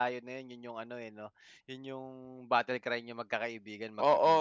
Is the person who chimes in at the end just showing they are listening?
No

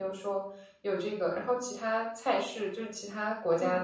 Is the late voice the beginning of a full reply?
No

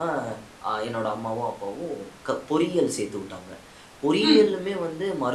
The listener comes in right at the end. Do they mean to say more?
No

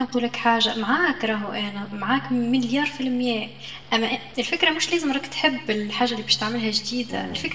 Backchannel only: Yes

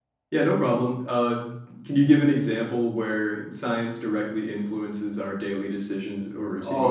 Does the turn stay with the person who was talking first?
No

